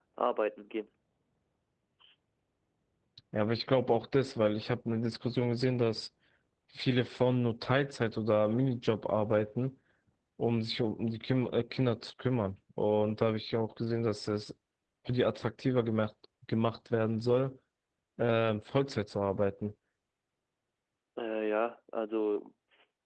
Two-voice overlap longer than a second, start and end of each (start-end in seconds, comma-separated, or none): none